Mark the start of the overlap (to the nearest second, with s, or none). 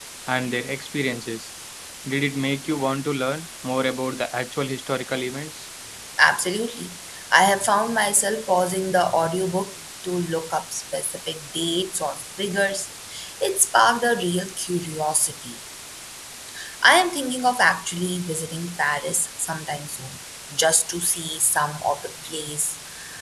none